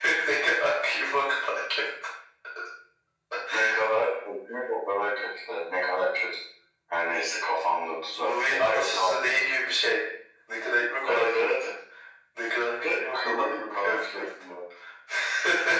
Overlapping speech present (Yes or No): Yes